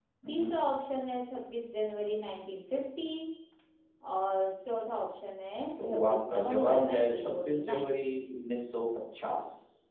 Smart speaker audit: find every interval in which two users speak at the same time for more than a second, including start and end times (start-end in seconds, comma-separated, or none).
5.8-7.9